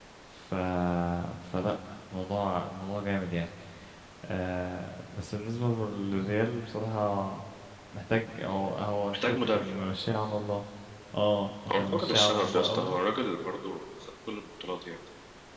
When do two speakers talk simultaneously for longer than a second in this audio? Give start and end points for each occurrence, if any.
11.7-13.0

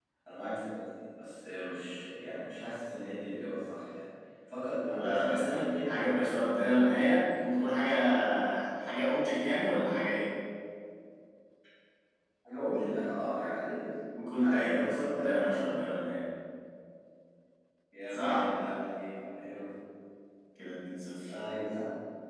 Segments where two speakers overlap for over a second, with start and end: 5.0-6.2, 14.4-15.7

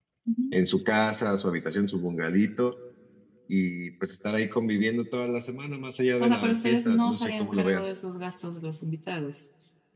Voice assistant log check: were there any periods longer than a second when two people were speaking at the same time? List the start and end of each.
6.2-7.9

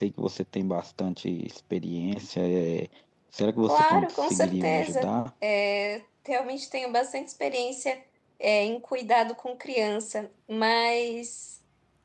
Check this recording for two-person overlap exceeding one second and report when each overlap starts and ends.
3.6-5.1

